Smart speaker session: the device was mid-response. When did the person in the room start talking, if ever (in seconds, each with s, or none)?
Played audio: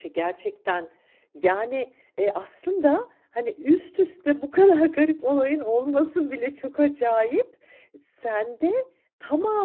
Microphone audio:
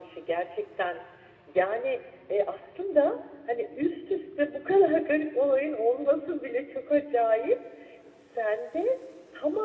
none